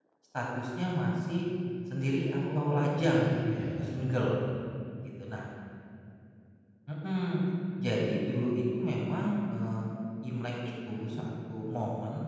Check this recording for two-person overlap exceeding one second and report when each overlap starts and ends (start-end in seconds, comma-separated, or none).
2.5-3.8